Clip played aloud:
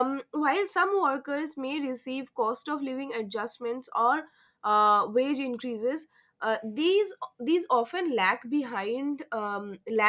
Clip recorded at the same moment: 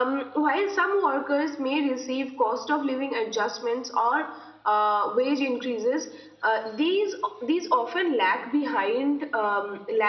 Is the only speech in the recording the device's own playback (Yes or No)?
Yes